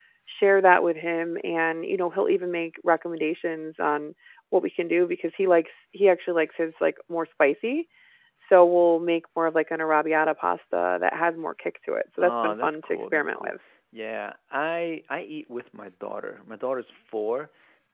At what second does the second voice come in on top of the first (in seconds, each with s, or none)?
12.2 s